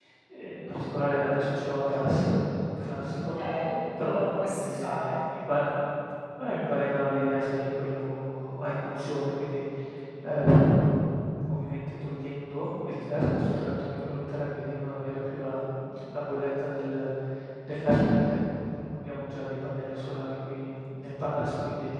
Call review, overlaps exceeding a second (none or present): present